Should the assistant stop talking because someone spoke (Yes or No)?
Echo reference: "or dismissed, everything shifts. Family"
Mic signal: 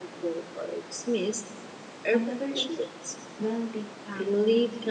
Yes